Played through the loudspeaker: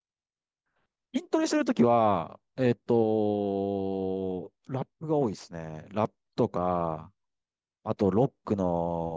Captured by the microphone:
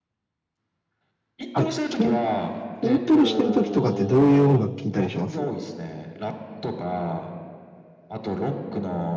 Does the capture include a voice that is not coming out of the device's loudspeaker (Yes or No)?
Yes